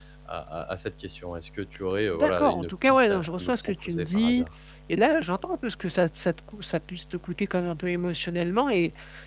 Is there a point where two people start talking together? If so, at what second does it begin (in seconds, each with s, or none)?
2.1 s